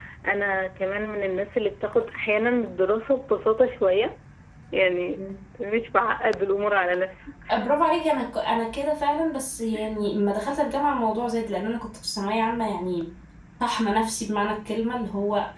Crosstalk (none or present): none